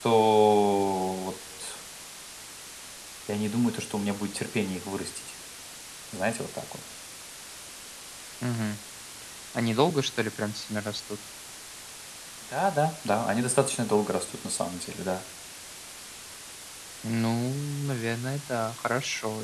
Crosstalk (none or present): none